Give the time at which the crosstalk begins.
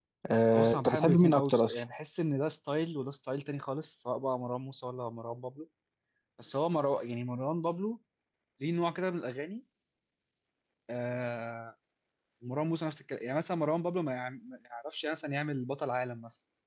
0.5 s

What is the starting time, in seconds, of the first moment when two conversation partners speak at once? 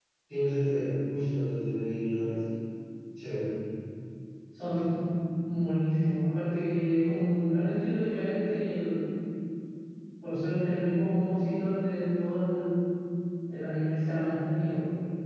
none

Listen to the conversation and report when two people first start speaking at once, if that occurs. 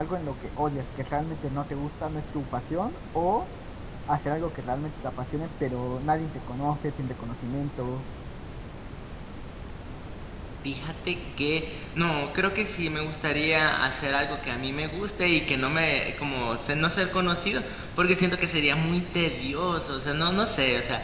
none

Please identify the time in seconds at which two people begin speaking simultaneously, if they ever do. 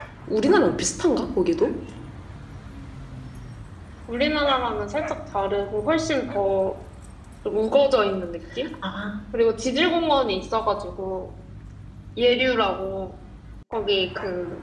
none

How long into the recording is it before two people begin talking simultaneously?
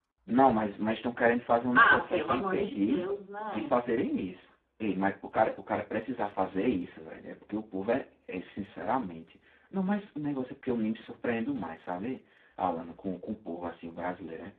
1.8 s

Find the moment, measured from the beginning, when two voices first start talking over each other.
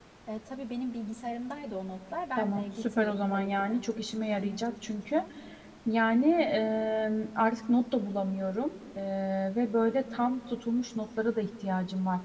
2.4 s

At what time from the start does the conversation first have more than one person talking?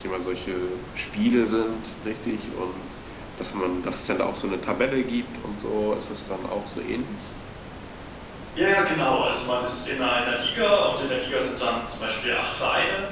none

